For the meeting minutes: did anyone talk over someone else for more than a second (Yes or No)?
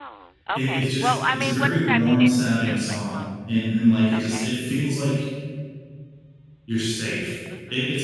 Yes